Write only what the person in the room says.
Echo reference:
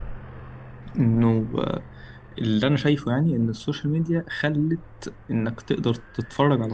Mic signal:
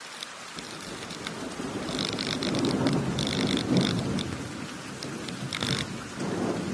none

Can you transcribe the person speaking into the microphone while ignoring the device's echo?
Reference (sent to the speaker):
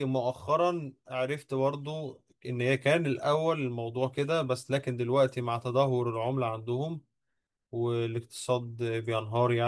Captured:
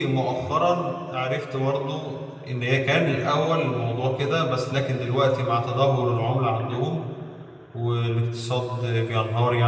none

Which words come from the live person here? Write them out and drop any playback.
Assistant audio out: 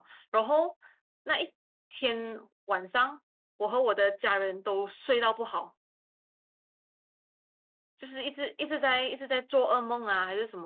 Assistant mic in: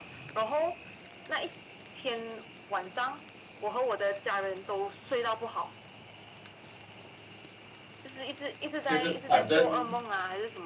就是反正。

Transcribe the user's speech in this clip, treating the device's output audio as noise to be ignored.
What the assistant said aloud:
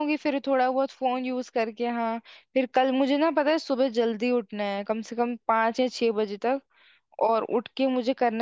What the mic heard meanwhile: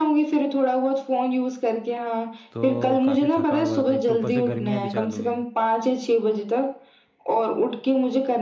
तो काफ़ी थकावट भरा था एक तो ऊपर से गर्मियाँ भी चालू हुई है

